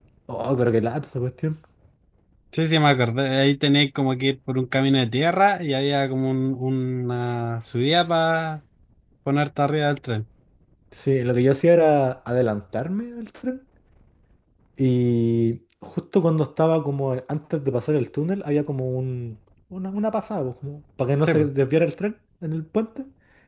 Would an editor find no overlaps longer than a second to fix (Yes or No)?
Yes